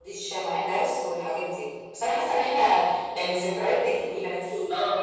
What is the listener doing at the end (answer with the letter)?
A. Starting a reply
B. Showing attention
B